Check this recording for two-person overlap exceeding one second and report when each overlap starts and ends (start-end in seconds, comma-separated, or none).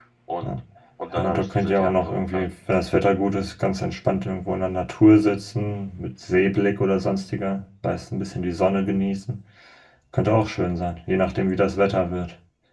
1.1-2.4